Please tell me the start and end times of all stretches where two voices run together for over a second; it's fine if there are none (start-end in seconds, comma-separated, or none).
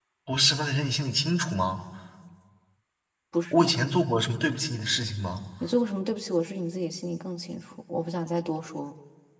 none